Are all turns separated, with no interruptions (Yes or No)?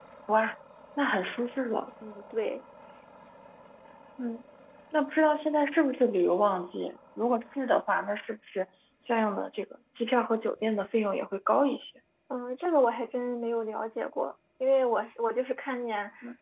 Yes